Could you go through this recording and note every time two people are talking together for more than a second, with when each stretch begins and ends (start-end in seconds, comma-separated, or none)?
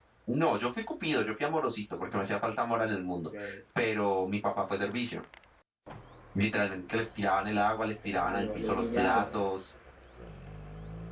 8.1-9.3